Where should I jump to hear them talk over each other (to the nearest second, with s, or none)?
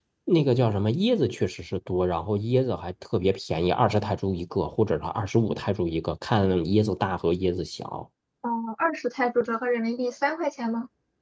none